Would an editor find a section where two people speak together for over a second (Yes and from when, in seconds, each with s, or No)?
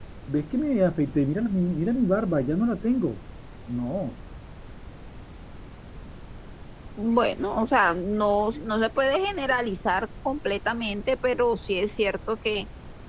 No